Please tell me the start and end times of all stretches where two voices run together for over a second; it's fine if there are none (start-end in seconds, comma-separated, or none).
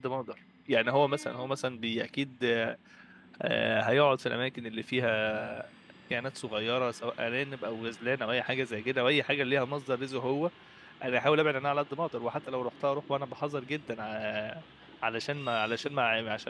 none